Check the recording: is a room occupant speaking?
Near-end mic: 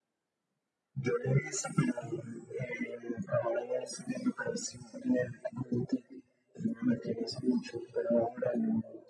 No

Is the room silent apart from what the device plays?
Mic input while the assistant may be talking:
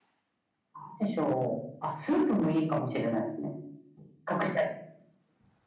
Yes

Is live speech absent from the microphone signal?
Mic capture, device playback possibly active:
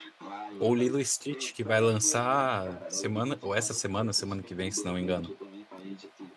No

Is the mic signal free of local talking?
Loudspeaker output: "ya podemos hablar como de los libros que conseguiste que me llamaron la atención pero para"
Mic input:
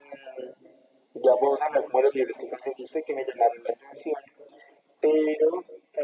Yes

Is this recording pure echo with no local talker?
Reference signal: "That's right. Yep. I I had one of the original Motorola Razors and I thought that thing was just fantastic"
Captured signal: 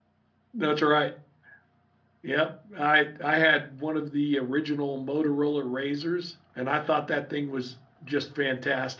Yes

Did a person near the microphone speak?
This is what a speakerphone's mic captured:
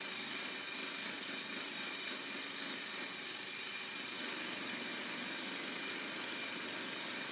No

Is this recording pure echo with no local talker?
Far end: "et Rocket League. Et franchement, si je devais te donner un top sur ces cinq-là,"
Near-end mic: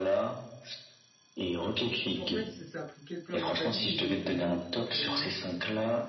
No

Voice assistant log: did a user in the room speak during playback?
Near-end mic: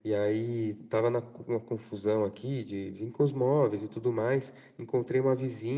No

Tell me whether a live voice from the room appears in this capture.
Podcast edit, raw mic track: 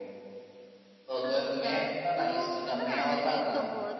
Yes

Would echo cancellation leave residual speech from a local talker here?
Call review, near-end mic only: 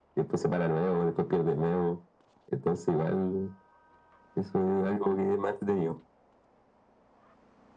No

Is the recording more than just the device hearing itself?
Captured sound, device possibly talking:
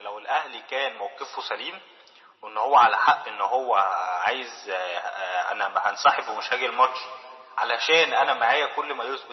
No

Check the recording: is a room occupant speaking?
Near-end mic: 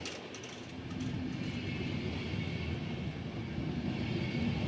No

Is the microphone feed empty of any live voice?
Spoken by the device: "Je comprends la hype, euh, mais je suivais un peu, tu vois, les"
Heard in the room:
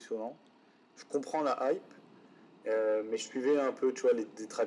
Yes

